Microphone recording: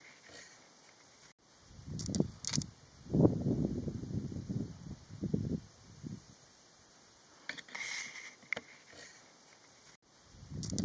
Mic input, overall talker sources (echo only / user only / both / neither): neither